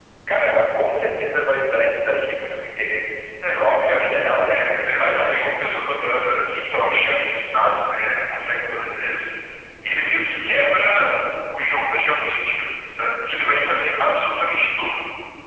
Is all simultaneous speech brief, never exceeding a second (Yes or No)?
No